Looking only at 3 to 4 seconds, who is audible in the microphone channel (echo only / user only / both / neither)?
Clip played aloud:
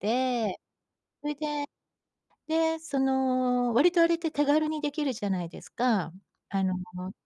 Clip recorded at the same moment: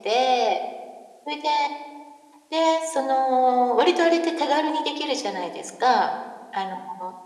echo only